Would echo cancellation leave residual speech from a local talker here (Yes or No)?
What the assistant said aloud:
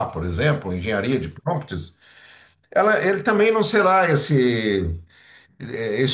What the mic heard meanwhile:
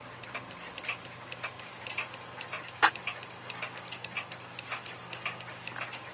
No